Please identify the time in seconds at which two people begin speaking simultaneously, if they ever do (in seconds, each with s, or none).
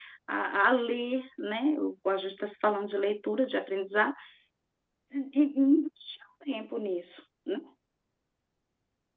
none